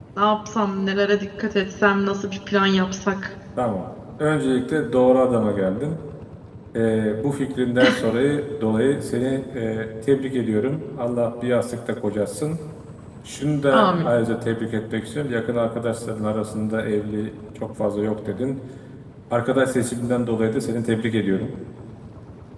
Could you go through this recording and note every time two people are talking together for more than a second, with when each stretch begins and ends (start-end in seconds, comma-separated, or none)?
none